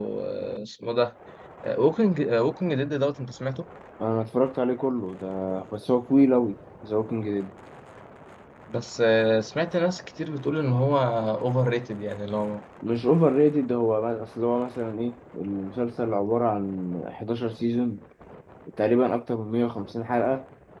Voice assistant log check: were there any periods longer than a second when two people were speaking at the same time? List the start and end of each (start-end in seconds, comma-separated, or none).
none